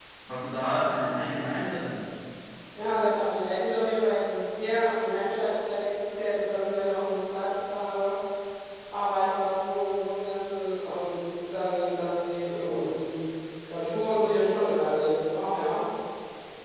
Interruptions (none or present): none